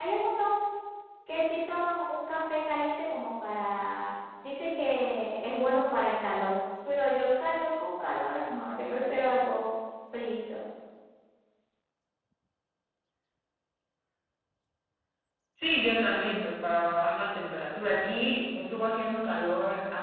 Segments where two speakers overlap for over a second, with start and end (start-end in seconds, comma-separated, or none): none